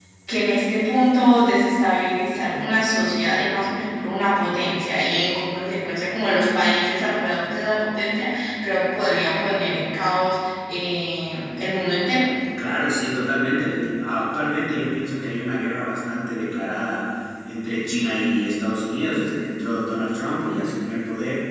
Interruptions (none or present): none